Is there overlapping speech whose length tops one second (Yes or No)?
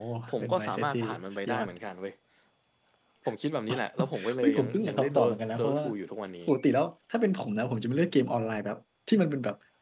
Yes